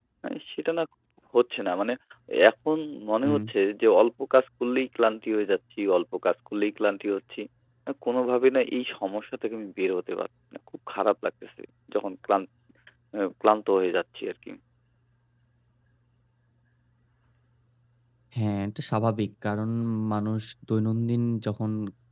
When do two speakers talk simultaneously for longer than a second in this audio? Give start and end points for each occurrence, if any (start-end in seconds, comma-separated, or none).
none